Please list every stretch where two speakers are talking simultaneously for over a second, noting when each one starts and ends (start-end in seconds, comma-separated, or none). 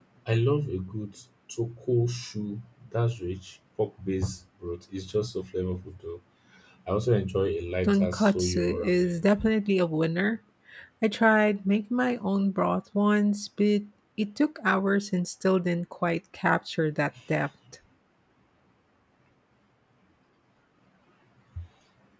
7.8-9.2